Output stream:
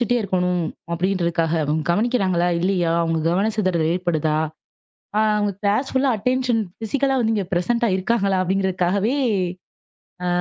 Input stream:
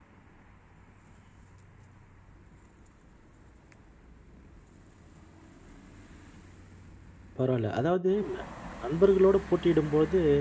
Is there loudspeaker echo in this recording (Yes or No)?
No